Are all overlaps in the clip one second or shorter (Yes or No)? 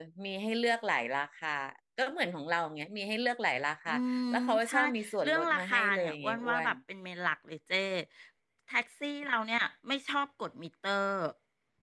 No